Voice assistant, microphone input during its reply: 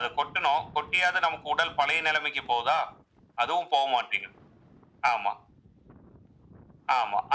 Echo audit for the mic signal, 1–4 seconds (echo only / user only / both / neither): echo only